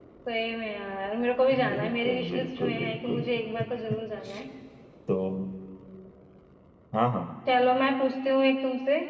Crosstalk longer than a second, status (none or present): present